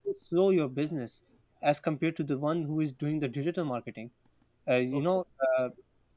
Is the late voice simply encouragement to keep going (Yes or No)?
Yes